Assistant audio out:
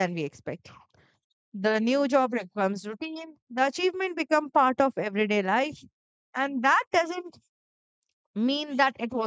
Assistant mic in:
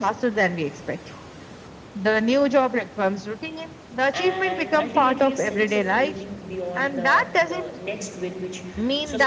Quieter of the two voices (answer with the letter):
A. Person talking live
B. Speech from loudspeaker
A